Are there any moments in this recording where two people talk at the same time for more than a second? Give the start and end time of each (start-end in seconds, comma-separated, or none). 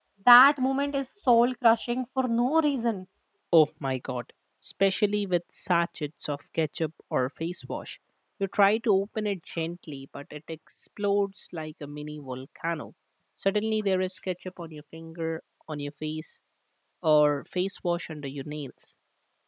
none